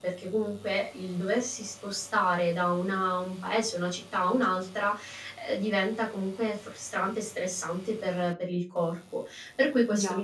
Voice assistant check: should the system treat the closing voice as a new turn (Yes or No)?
No